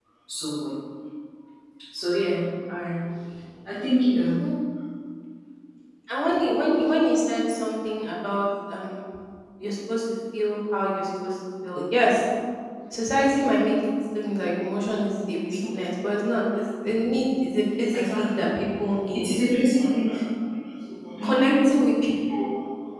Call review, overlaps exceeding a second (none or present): none